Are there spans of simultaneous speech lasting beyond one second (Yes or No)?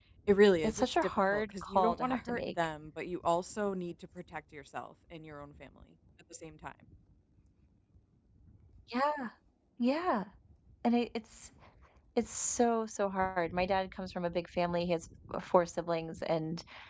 Yes